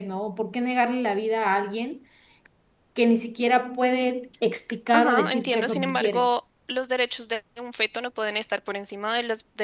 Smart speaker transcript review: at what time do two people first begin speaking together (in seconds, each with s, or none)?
4.9 s